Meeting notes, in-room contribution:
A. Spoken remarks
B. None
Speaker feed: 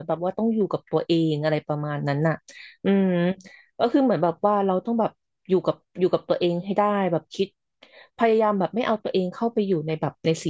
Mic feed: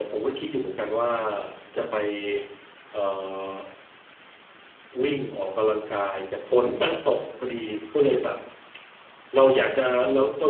A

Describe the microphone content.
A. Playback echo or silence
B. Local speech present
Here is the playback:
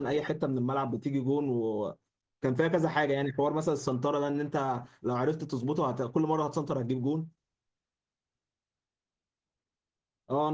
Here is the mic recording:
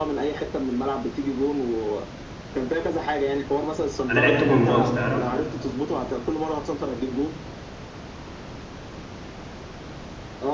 B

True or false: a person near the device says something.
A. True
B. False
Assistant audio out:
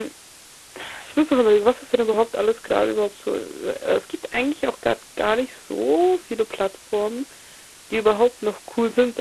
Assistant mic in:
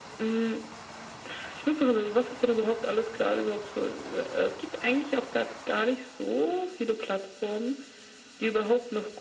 B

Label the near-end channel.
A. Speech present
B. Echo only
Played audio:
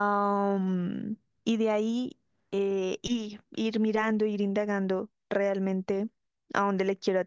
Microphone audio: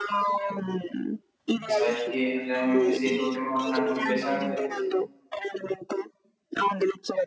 A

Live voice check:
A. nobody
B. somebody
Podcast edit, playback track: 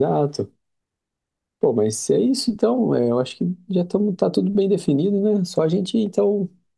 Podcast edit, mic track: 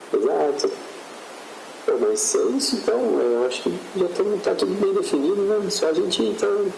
A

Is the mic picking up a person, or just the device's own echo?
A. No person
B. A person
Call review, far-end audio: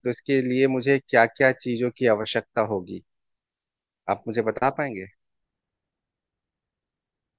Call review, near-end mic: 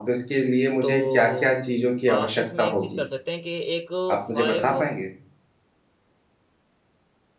B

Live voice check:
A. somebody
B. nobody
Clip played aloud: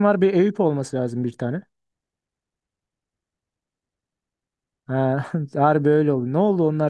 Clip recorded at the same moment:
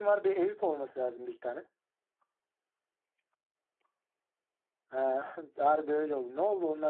B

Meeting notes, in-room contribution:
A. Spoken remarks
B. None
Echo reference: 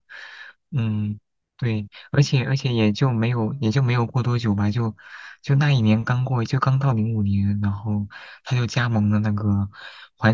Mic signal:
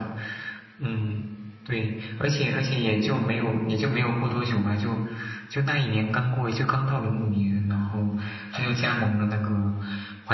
B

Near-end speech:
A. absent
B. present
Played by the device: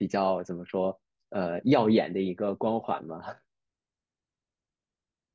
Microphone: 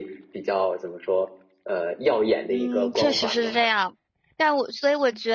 B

